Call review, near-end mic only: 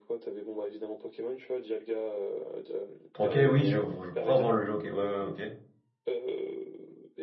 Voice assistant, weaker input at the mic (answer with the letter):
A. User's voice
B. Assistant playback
B